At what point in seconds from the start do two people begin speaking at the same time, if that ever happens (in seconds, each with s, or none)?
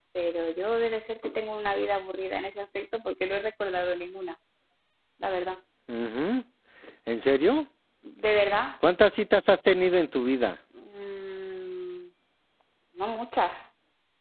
none